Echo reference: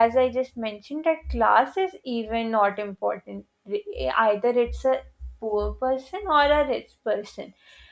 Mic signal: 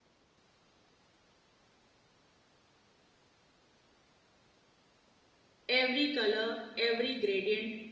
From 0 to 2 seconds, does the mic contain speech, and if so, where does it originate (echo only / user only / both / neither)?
neither